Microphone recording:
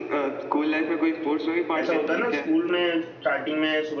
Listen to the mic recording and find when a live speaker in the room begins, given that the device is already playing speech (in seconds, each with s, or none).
1.8 s